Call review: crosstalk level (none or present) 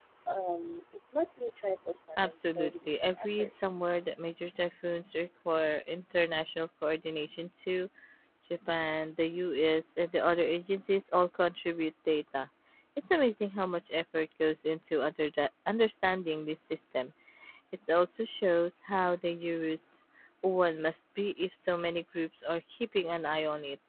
present